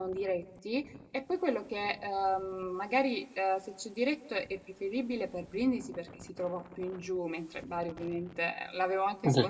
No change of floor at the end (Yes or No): No